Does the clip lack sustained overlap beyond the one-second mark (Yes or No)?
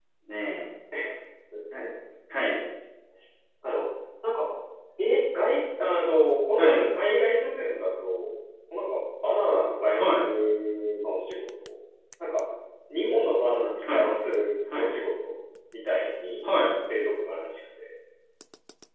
Yes